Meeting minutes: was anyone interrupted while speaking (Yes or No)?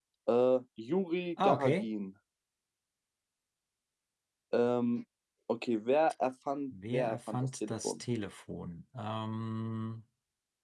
Yes